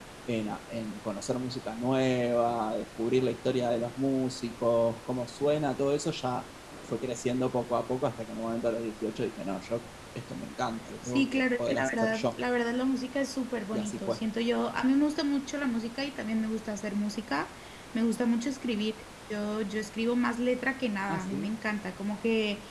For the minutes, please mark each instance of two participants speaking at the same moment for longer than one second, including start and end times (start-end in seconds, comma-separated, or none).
11.0-12.3